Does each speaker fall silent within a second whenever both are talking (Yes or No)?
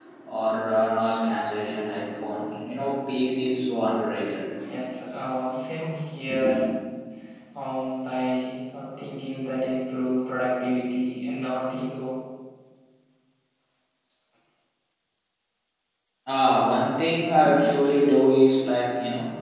Yes